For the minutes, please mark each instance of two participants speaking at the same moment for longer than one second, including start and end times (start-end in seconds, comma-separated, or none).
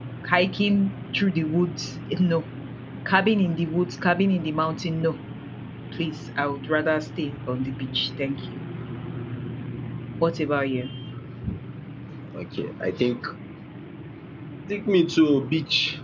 none